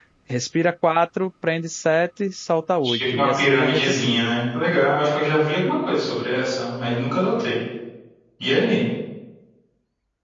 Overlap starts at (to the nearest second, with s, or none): 3 s